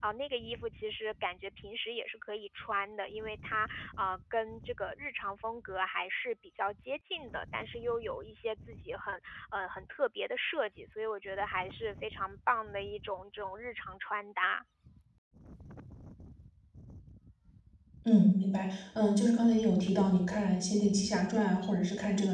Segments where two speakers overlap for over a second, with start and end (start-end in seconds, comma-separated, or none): none